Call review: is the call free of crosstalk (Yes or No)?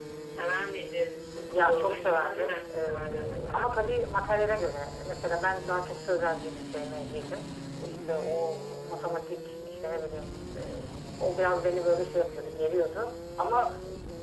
No